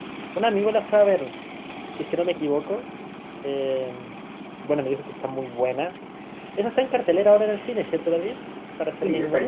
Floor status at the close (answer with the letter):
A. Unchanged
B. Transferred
B